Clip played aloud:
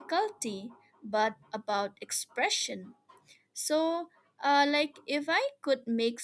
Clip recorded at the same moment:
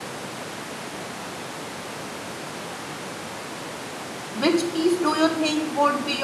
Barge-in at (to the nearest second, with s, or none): 4 s